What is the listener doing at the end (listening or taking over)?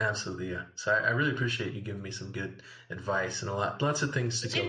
listening